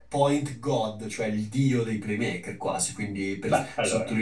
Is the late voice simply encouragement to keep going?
Yes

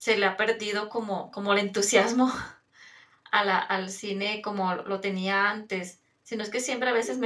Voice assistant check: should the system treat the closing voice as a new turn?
No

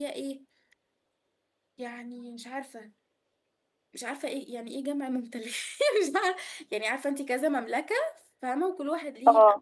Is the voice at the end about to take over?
No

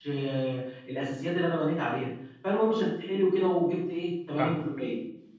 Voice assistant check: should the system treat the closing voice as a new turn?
No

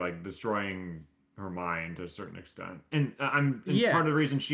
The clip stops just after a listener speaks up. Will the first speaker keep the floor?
Yes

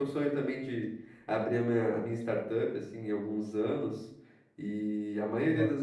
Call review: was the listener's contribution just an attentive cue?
Yes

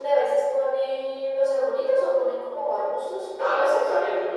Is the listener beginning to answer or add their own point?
Yes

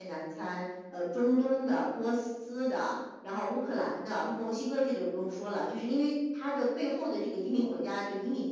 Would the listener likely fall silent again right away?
Yes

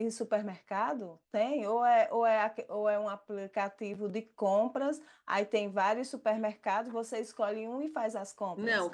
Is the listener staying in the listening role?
No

